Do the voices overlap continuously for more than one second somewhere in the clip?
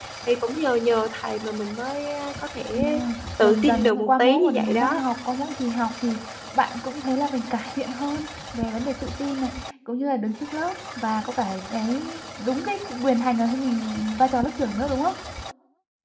Yes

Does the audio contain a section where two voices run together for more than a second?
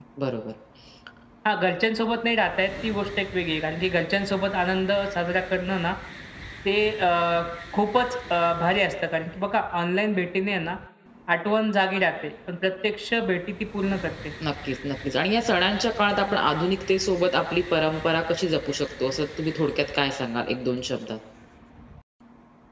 No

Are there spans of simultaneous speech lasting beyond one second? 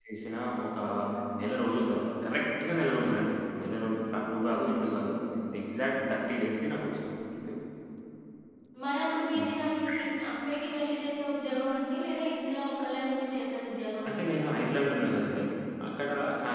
No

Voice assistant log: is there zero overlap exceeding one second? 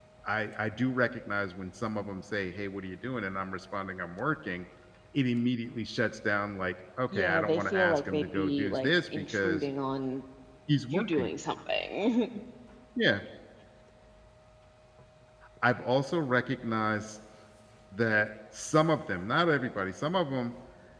No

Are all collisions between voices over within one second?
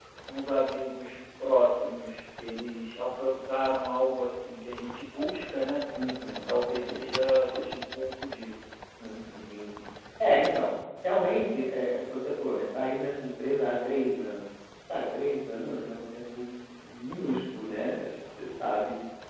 Yes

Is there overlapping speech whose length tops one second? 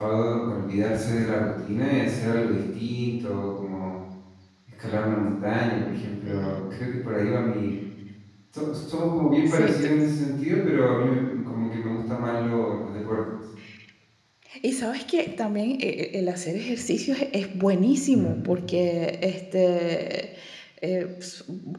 No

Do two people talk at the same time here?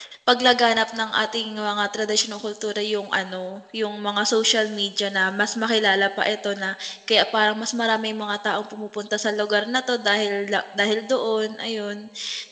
No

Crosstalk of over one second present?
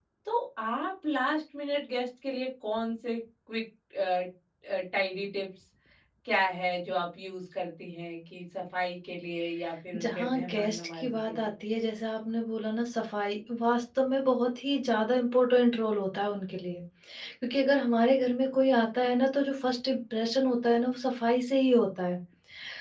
Yes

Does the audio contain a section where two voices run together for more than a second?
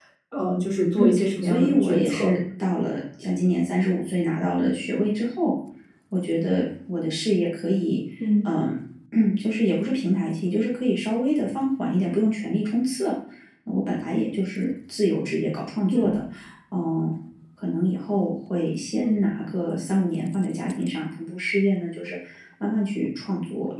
Yes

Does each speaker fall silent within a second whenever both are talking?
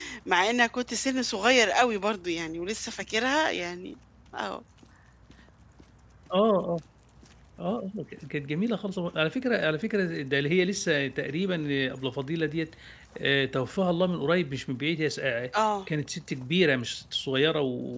Yes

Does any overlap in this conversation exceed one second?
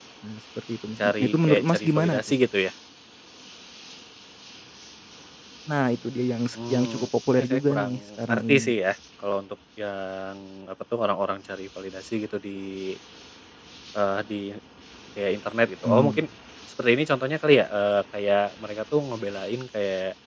Yes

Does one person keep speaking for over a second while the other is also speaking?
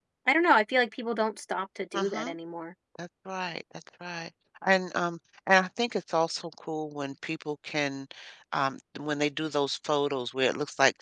No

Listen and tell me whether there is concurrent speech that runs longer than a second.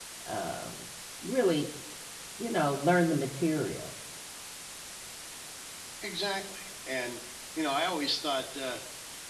No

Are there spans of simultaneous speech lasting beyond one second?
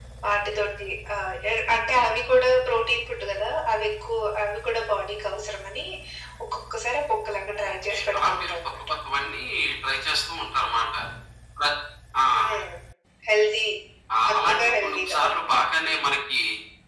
Yes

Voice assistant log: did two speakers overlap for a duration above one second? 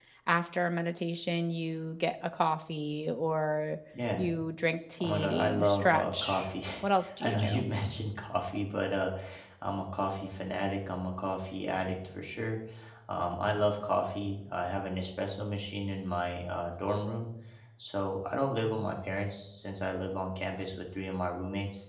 Yes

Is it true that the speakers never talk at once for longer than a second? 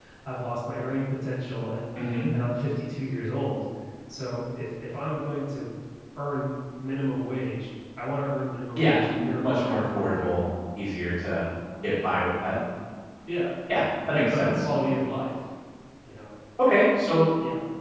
No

